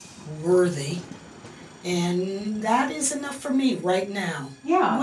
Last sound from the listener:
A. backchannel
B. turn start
B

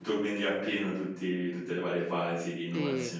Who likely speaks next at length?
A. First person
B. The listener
A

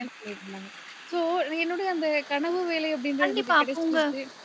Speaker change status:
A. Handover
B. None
A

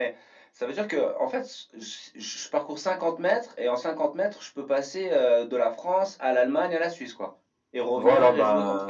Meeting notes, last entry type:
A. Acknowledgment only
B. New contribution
B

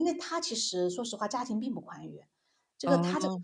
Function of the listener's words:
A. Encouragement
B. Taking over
A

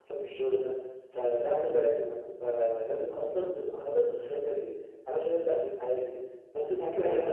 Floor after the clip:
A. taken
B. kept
A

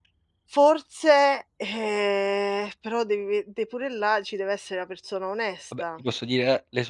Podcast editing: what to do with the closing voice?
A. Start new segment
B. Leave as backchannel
A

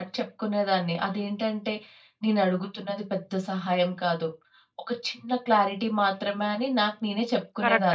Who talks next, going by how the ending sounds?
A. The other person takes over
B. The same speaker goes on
A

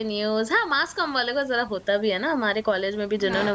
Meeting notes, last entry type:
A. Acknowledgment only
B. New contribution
B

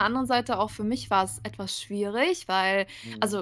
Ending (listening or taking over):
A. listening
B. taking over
A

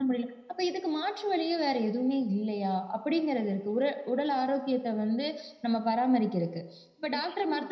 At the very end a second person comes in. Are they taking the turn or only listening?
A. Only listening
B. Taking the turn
A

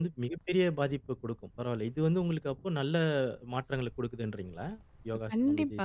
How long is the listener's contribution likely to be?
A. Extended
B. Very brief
A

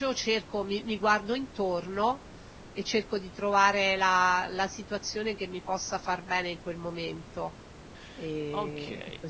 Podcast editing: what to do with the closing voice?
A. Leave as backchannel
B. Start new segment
B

